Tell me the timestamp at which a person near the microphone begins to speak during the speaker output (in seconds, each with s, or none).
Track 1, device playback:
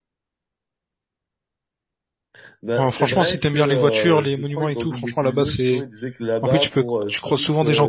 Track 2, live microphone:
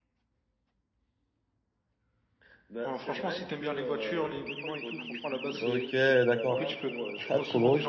5.6 s